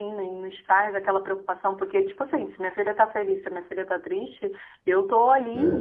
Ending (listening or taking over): listening